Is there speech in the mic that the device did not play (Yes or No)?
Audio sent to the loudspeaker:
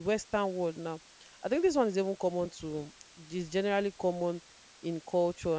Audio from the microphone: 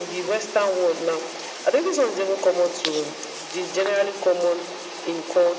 No